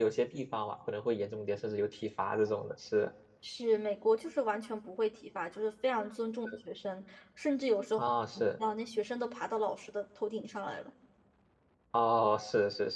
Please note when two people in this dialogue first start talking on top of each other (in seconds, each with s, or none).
none